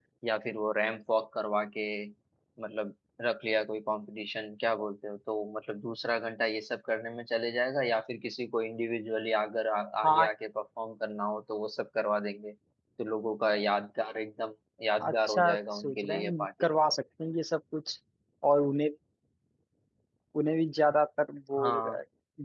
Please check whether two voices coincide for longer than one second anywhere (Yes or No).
Yes